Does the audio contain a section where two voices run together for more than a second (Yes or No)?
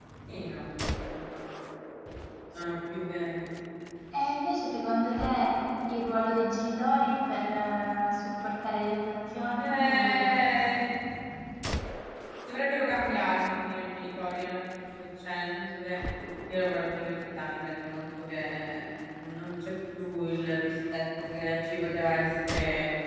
Yes